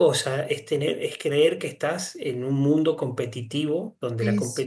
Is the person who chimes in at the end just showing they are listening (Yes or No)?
Yes